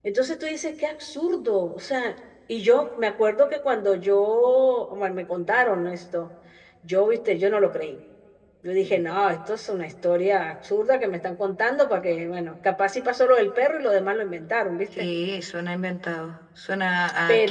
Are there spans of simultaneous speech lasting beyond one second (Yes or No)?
No